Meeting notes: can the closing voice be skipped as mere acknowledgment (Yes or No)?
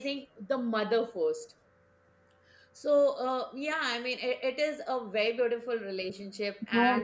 No